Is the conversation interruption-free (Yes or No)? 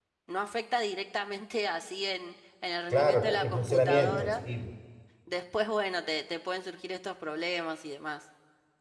No